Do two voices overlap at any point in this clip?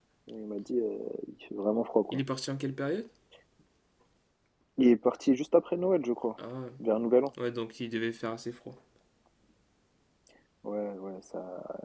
No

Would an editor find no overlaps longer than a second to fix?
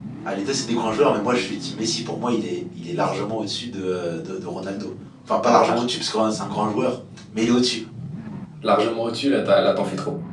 Yes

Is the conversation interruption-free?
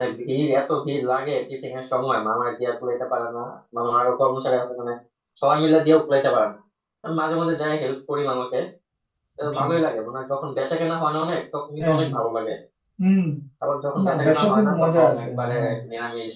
No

